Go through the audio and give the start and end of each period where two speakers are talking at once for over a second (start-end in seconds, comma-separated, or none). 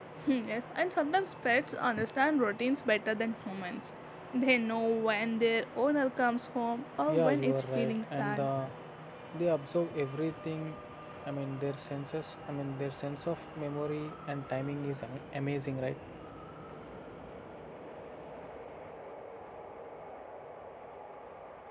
7.1-8.5